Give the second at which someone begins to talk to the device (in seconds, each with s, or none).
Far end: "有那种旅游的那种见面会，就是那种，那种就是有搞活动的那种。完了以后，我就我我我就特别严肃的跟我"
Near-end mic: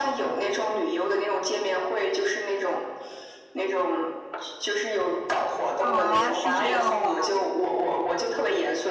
5.8 s